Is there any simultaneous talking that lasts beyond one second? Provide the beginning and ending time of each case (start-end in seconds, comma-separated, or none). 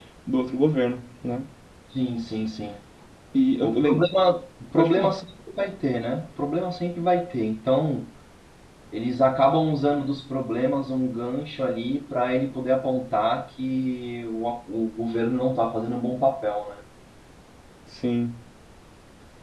none